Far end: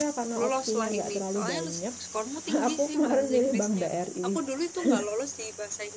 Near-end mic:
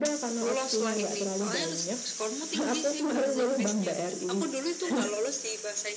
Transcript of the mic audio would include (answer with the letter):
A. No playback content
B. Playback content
B